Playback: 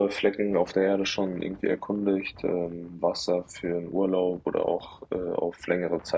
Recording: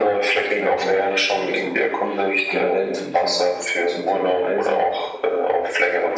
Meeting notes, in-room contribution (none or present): present